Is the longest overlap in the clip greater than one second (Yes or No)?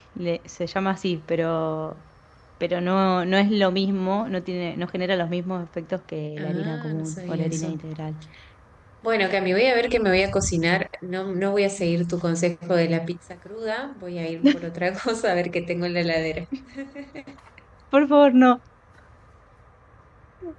Yes